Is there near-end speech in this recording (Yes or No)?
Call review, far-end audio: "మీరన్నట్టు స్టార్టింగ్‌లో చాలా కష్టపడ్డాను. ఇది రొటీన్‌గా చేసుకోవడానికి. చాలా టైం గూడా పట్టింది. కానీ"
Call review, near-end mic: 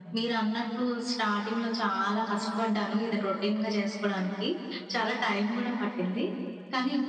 No